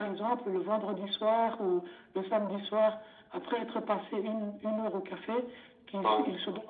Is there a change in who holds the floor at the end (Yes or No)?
No